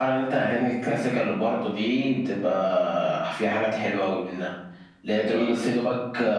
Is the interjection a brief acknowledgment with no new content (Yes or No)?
Yes